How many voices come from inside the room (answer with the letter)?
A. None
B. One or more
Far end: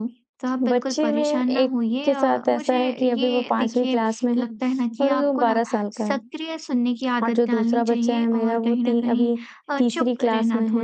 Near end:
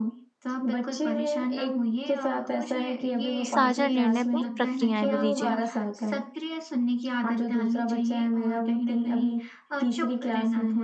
B